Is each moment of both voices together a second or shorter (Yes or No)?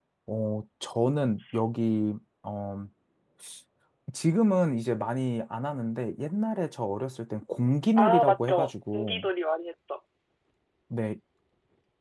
No